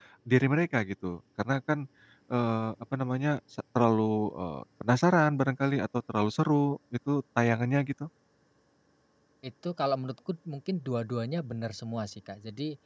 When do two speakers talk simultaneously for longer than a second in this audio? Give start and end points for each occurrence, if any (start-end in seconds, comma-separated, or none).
none